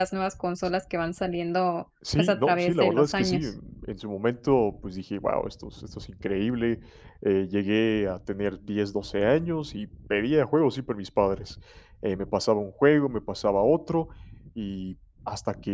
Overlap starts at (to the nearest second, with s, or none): 2 s